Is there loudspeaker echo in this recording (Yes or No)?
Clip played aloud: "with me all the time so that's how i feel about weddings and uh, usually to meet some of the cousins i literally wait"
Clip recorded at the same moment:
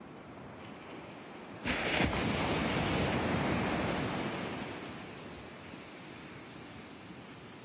No